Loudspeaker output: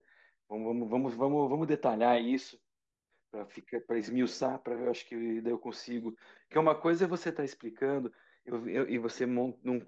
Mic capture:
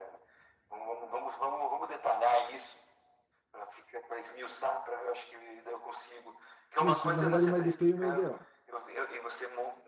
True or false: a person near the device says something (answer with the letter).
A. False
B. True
B